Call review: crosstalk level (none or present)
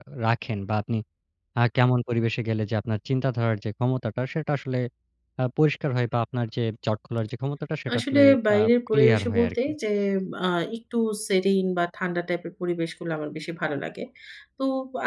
present